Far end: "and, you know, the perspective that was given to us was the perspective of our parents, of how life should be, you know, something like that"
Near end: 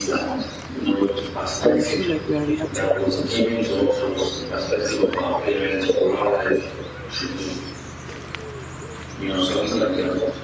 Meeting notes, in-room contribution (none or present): present